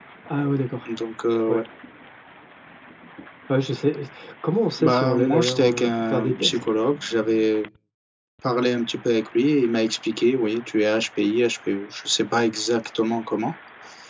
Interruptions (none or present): present